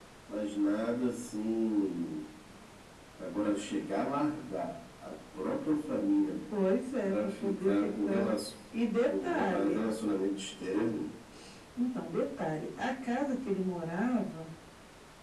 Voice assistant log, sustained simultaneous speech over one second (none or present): present